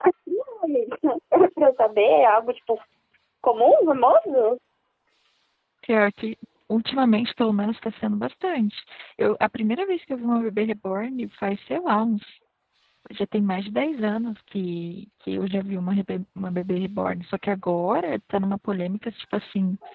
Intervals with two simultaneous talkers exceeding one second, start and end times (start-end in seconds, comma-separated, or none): none